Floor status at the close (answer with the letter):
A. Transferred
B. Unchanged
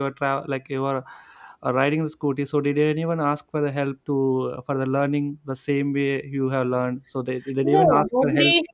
A